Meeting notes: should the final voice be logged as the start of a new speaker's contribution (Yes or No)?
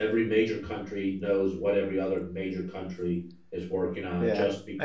Yes